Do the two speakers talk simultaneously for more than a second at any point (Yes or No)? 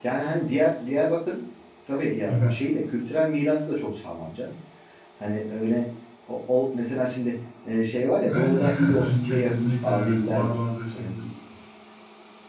Yes